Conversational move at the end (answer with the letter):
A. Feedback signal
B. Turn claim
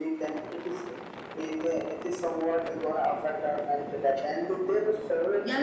B